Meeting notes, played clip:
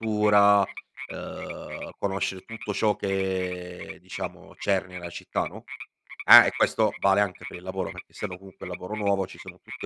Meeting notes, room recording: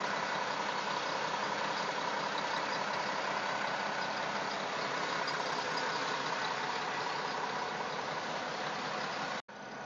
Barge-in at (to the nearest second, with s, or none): none